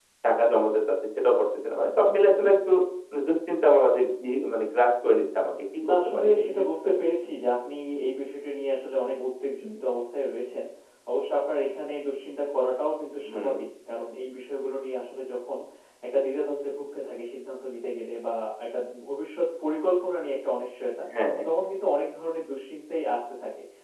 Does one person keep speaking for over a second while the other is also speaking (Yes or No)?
Yes